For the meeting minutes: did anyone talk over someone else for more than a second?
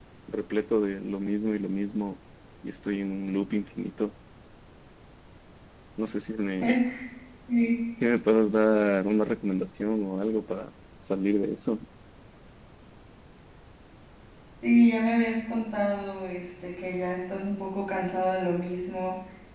No

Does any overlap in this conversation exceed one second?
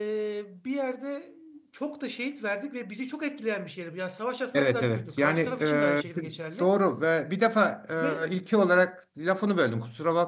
Yes, from 4.5 s

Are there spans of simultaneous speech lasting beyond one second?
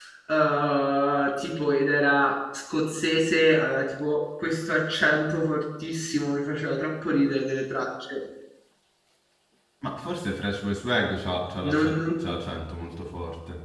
No

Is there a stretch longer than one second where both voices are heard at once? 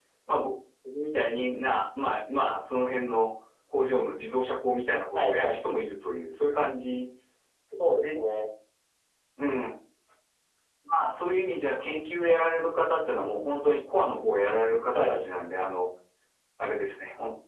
No

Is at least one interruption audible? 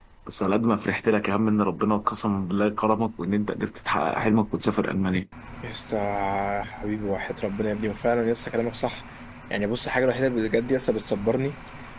No

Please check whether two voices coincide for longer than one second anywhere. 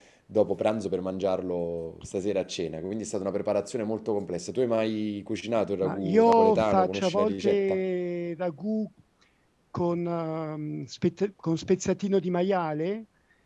Yes, from 5.8 s

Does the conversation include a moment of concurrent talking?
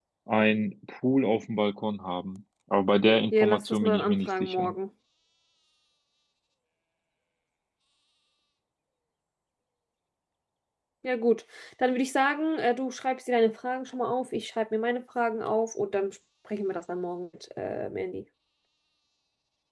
Yes, from 3.3 s

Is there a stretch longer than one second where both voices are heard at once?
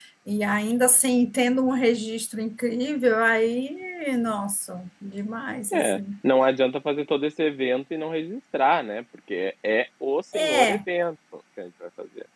No

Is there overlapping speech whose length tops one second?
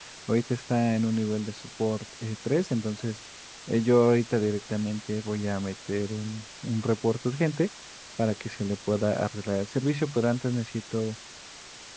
No

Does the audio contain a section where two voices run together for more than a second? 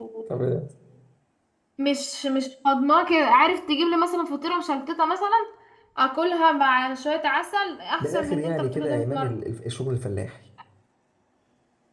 Yes, from 8.0 s

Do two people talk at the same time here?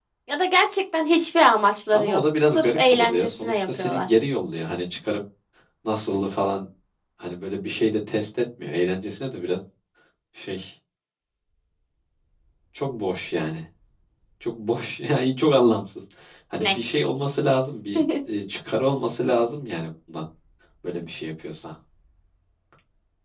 Yes, from 1.9 s

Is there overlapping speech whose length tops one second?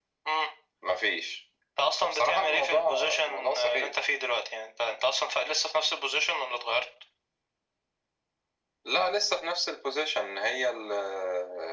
Yes, from 2.0 s

